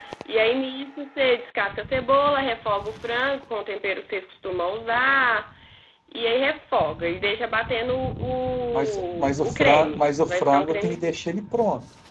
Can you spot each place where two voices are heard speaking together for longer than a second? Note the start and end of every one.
8.7-11.2

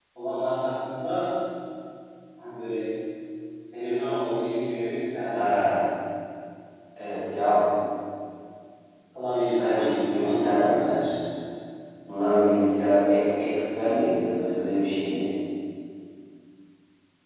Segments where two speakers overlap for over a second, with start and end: 9.6-11.1

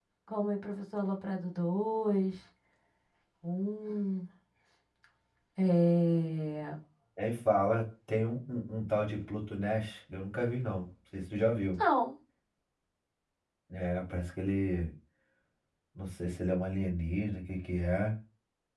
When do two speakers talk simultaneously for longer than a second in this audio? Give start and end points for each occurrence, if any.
none

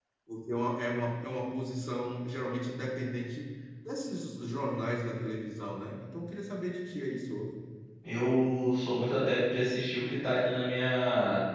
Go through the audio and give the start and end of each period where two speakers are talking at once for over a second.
none

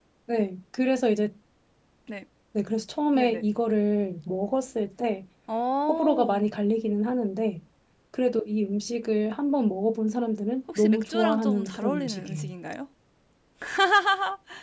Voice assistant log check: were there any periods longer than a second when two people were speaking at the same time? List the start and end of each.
10.8-12.5

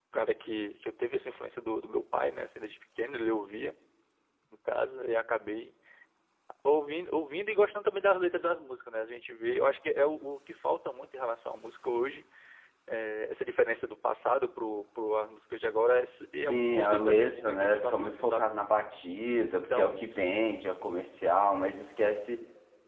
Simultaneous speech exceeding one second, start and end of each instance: 16.5-18.5

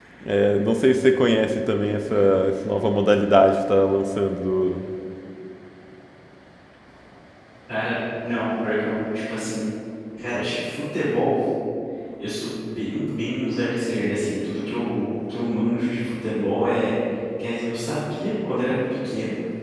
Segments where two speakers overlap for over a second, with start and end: none

